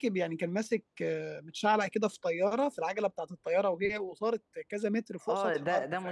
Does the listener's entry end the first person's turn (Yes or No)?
Yes